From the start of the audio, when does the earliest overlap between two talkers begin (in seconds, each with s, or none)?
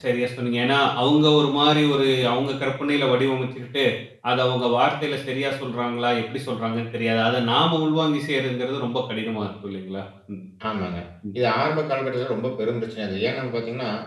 none